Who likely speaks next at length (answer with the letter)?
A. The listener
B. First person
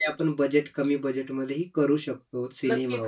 A